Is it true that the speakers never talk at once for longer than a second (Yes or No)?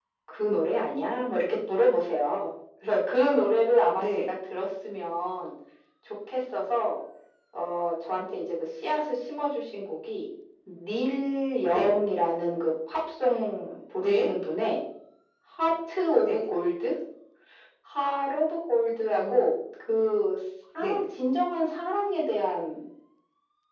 Yes